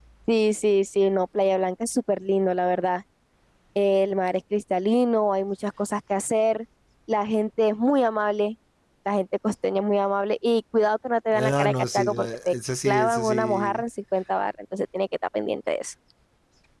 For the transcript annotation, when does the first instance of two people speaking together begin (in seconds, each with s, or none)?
11.3 s